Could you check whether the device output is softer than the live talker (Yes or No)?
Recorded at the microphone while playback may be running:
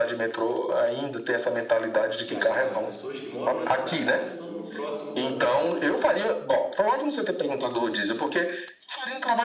No